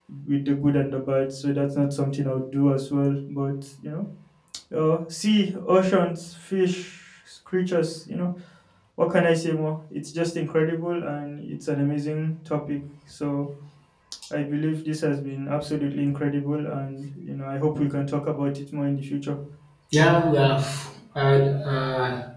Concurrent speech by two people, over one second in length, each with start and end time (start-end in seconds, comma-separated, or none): none